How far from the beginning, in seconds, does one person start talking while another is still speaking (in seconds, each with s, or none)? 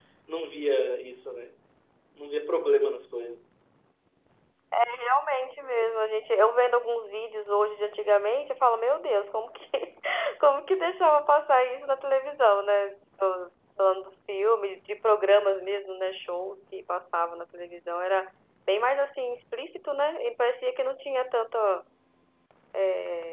none